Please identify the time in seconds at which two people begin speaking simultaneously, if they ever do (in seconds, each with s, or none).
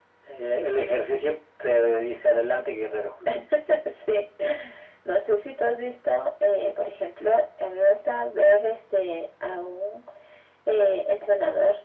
none